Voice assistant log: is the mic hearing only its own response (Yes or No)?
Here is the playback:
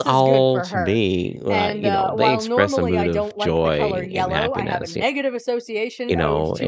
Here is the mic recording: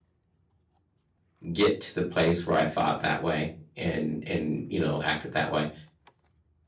No